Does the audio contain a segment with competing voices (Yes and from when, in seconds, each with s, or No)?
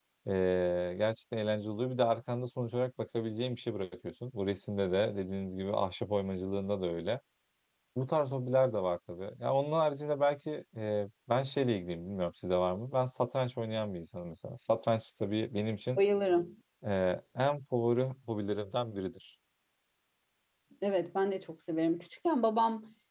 No